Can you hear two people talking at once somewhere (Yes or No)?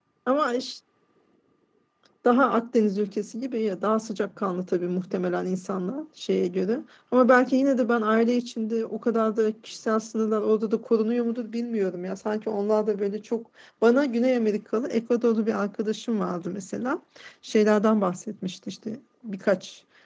No